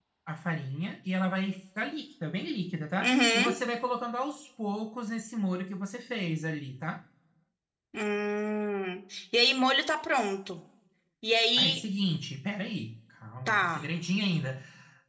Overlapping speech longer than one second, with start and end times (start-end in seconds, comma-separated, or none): none